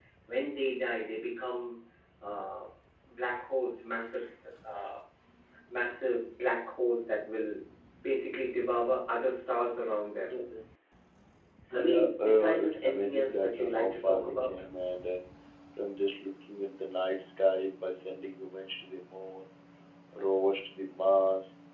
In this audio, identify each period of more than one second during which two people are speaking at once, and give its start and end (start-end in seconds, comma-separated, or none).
11.7-14.6